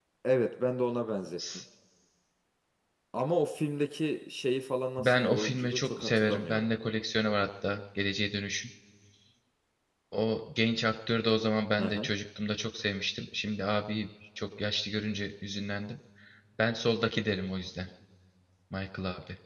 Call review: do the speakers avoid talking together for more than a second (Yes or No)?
No